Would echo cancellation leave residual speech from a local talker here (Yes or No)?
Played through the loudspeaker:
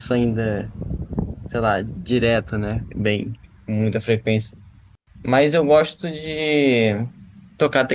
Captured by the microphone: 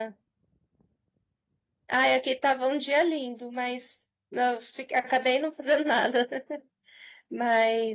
Yes